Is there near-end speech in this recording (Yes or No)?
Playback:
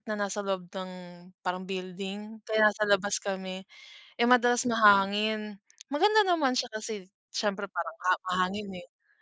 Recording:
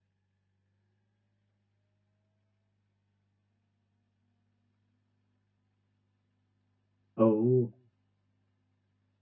Yes